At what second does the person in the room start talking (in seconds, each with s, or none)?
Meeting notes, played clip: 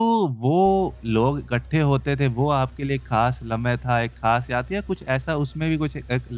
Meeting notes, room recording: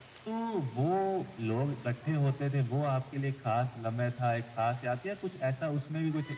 none